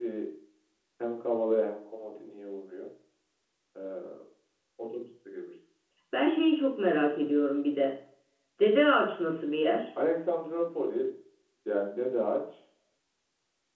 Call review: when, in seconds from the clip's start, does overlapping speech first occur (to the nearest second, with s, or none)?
none